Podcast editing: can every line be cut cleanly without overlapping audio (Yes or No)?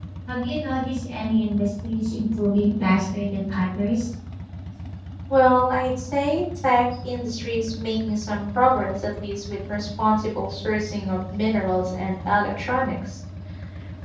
Yes